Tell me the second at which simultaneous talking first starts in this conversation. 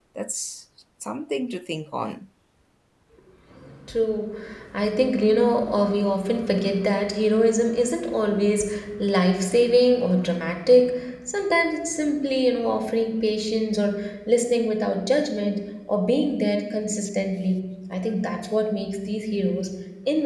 none

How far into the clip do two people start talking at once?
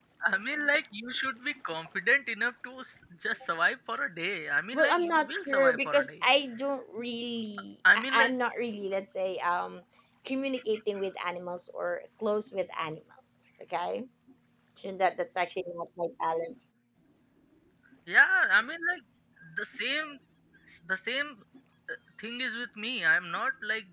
4.7 s

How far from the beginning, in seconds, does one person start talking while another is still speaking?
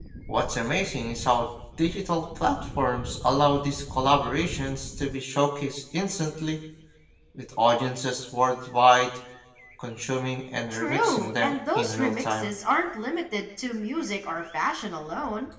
10.7 s

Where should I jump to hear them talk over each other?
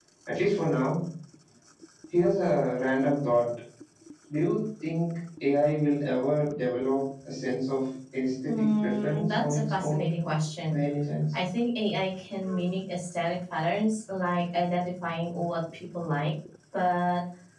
8.5 s

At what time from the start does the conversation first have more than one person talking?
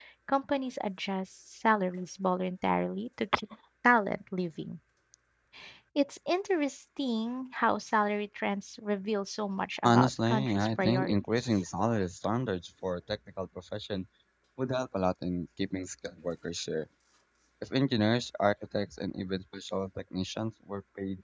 9.8 s

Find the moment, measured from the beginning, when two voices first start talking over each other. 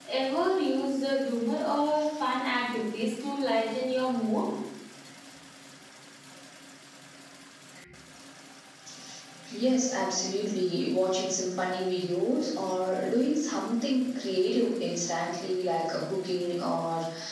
none

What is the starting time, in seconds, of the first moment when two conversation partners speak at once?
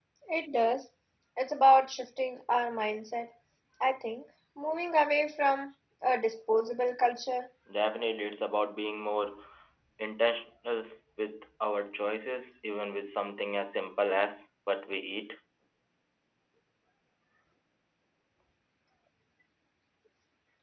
none

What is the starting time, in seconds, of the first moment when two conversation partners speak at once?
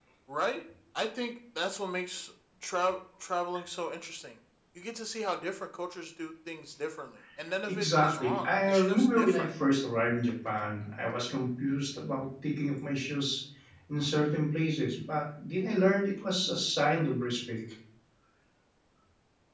7.7 s

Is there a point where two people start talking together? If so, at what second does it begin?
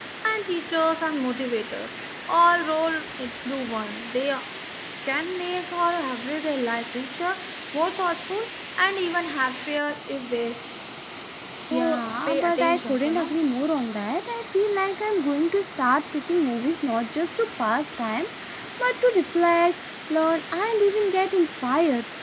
11.7 s

